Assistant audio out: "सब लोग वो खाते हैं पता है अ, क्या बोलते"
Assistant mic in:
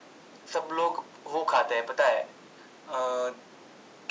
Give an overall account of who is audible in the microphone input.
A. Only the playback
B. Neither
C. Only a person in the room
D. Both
A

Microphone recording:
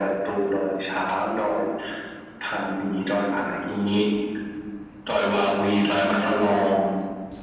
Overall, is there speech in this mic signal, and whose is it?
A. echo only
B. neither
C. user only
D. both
A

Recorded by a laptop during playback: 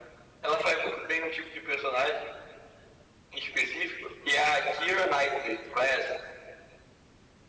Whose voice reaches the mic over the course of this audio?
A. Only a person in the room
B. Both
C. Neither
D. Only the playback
D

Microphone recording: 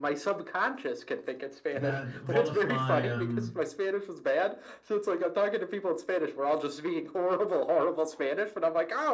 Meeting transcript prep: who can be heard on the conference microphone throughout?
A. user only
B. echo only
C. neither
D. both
D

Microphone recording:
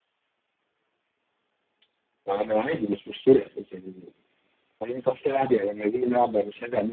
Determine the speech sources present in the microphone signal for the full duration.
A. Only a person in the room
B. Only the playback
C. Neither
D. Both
B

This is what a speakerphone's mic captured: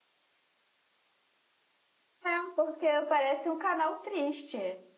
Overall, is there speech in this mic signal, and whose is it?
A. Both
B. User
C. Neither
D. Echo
B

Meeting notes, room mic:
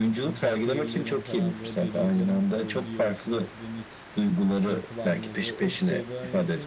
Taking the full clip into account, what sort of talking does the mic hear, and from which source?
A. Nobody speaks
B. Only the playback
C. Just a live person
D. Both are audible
D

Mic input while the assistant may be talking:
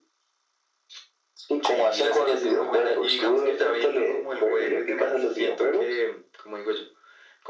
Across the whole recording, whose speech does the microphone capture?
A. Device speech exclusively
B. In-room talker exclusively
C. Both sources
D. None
A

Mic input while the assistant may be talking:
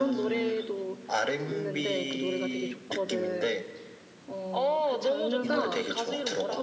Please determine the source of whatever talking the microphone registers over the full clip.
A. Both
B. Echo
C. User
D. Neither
A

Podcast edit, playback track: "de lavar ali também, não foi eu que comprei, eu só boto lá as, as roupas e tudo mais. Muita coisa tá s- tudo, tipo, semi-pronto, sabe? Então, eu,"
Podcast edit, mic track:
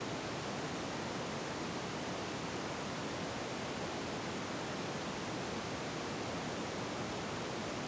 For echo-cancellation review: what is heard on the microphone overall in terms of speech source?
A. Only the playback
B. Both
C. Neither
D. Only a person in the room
C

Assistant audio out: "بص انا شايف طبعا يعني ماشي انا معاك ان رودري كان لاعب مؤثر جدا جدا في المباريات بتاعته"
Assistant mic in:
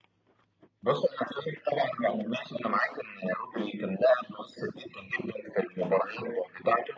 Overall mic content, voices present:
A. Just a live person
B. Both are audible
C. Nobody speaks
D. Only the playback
D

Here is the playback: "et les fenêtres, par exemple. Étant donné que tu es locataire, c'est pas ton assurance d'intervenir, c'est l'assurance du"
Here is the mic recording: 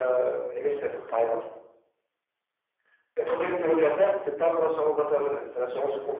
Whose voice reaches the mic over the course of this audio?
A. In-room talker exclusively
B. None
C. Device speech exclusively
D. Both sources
C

